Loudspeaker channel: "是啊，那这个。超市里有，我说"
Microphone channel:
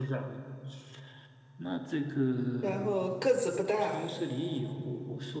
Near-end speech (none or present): present